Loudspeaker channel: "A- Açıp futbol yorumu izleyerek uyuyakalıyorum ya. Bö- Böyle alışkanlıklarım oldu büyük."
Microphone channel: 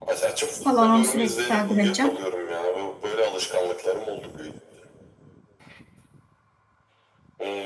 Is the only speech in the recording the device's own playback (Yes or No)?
No